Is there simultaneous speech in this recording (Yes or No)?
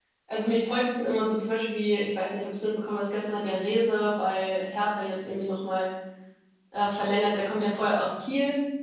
No